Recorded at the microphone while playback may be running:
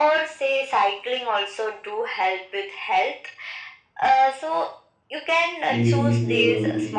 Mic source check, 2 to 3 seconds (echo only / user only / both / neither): echo only